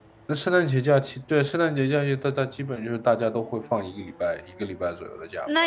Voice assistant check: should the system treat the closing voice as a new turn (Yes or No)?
Yes